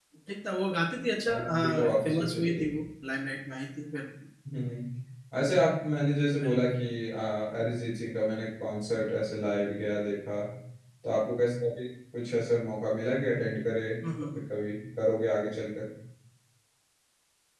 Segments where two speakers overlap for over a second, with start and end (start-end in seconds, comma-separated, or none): 1.3-2.6